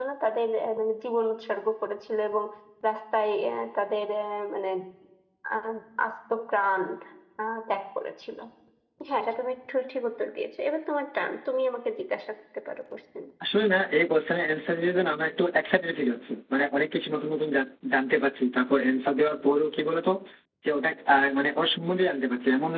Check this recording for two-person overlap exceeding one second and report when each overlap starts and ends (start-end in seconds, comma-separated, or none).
none